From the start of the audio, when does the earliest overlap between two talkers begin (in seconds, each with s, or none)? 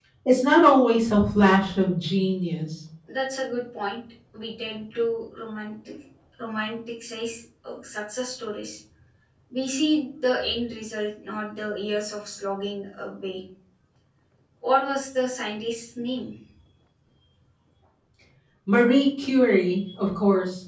none